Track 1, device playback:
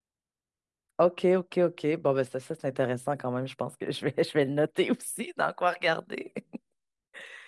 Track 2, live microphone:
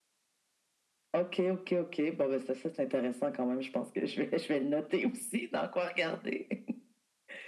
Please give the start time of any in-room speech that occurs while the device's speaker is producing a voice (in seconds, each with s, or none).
none